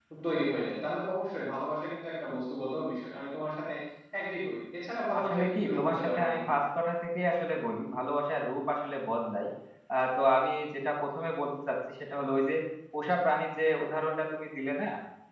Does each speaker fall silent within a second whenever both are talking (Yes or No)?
No